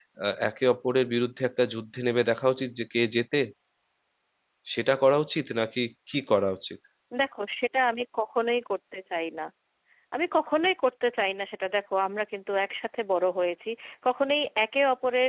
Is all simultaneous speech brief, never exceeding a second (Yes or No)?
Yes